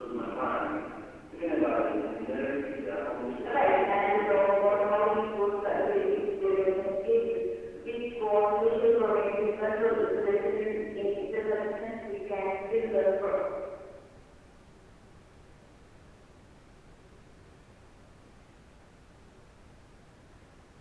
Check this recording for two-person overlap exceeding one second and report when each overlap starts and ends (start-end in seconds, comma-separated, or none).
3.5-5.0